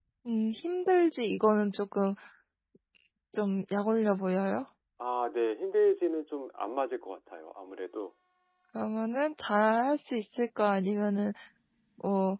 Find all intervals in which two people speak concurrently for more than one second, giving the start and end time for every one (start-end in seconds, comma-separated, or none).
none